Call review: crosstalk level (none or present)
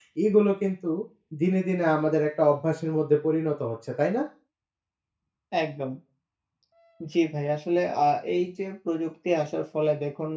none